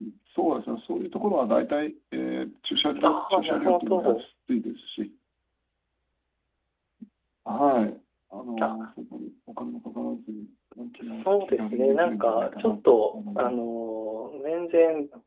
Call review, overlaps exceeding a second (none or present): present